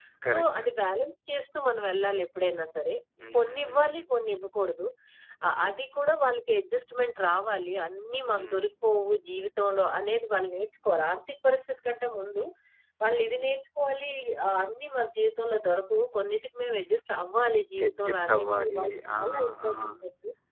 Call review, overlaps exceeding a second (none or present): present